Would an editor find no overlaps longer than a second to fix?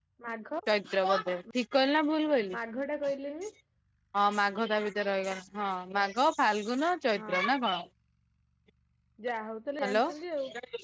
Yes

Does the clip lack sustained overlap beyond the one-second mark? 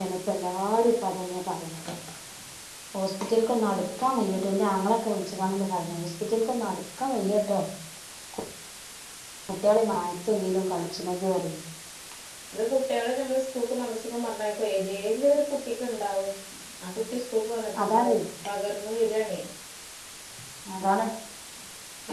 Yes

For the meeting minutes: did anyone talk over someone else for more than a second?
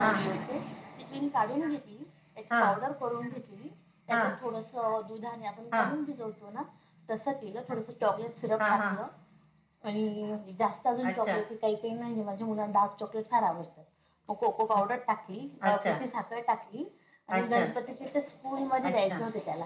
No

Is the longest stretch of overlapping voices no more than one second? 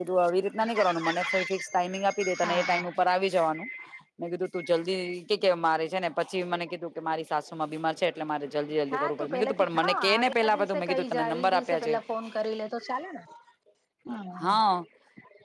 No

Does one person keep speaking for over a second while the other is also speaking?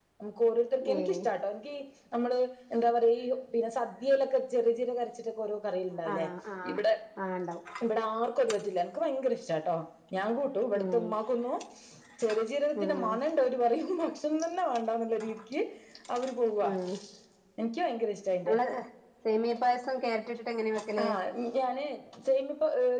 No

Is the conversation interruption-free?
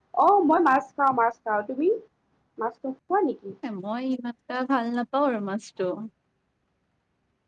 Yes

